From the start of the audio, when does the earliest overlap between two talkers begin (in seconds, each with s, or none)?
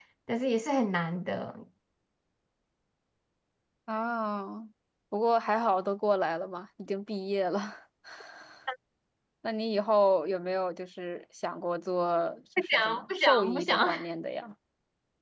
12.6 s